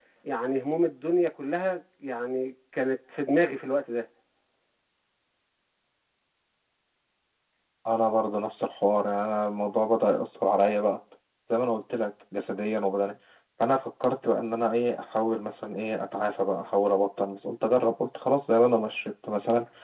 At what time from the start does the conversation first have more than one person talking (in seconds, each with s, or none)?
none